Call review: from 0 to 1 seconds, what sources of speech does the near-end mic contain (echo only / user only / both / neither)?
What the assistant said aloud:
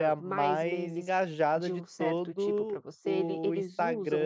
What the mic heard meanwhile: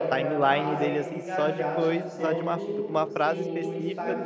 both